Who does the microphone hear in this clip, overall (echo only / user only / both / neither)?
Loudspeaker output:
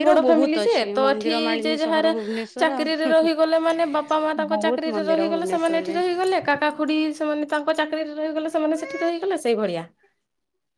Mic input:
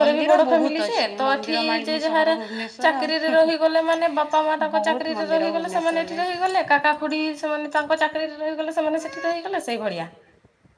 echo only